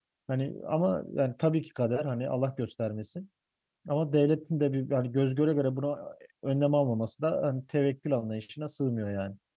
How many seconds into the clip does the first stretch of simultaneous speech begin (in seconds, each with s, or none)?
none